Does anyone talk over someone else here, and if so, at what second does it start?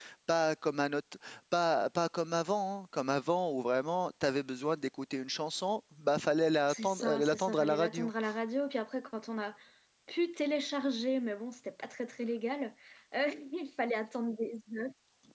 7 s

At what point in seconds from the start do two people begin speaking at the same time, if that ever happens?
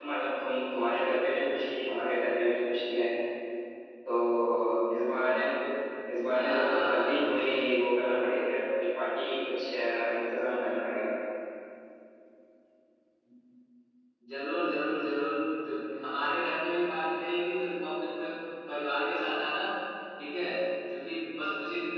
6 s

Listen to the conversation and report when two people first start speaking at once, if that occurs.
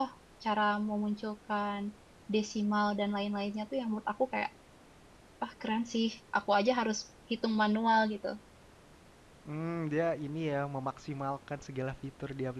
none

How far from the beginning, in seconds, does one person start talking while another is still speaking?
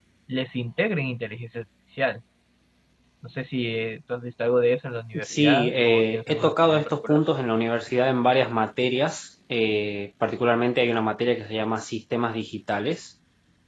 5 s

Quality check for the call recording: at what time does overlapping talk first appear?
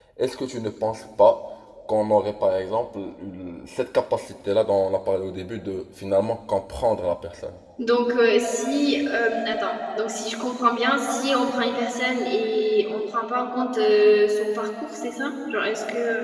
none

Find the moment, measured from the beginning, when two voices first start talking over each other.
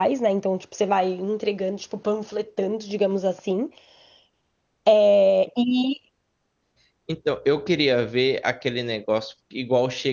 none

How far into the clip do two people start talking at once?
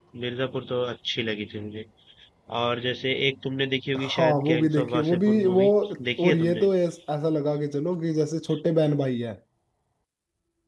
4 s

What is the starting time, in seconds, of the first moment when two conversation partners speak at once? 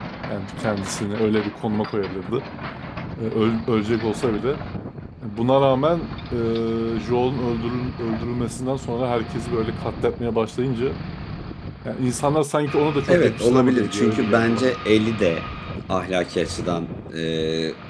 13 s

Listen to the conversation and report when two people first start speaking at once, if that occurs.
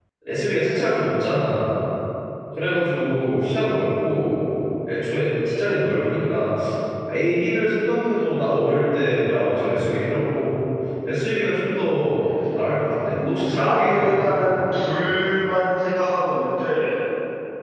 13 s

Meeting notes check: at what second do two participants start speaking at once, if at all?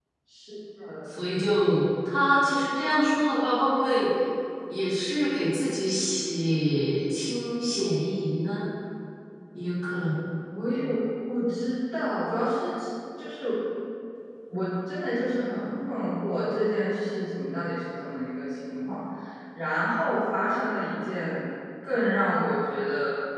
none

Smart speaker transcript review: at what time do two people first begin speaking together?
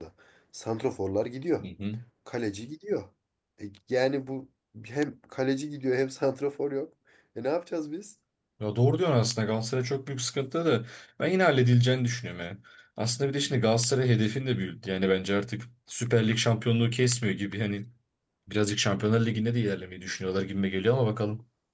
none

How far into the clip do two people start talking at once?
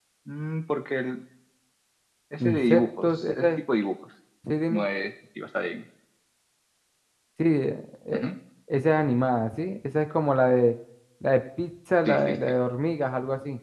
2 s

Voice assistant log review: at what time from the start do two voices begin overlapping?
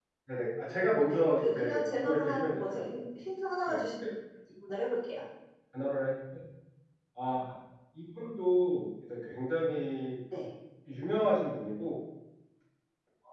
1 s

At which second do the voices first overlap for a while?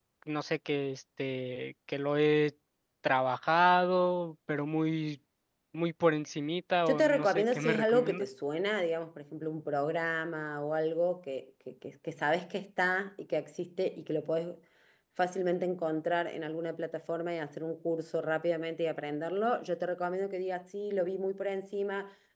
7 s

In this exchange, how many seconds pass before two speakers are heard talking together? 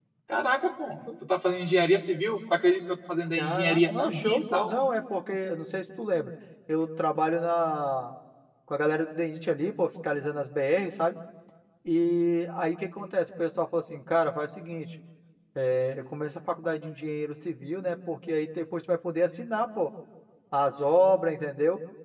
3 s

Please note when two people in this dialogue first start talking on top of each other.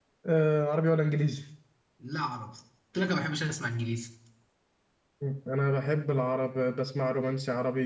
none

